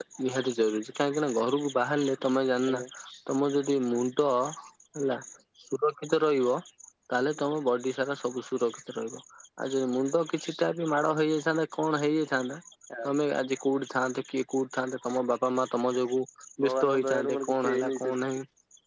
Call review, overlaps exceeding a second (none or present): present